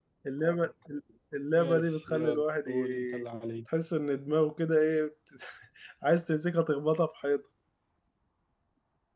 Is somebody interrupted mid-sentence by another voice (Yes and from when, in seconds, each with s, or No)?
Yes, from 1.6 s